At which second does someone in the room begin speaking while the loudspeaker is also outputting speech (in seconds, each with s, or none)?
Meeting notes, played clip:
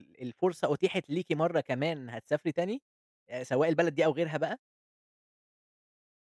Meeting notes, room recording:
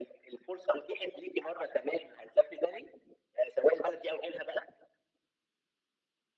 none